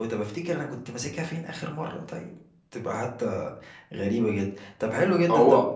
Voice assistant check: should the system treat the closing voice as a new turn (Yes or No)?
No